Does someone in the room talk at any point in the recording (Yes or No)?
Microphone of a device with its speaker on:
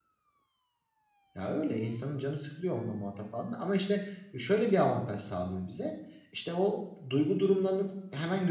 Yes